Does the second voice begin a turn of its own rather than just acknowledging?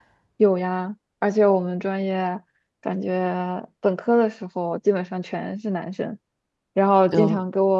No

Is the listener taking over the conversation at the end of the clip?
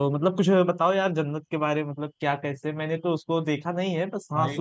No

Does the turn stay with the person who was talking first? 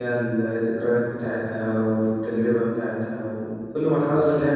No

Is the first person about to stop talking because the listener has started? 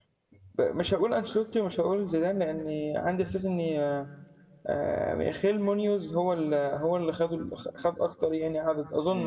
Yes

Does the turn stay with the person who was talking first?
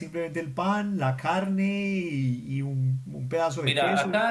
No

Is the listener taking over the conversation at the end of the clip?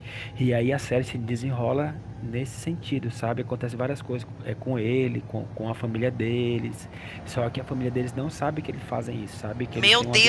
Yes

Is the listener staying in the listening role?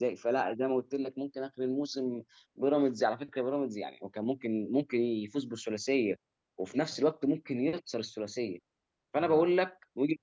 Yes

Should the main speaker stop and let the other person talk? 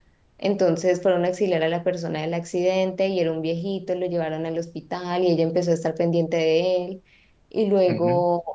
No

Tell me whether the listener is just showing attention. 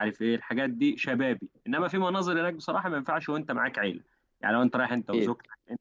Yes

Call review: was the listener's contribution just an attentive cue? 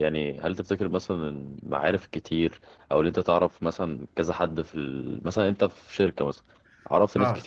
Yes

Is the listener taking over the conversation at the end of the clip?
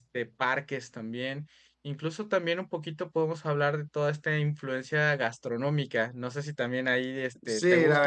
Yes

